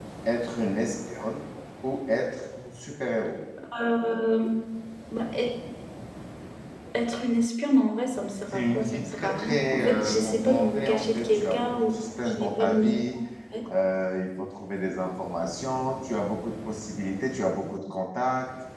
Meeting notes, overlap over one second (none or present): present